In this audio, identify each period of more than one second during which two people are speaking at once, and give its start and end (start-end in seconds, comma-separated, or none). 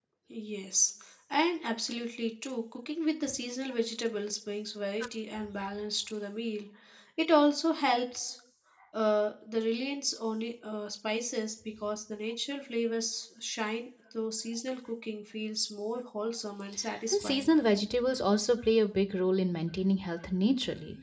none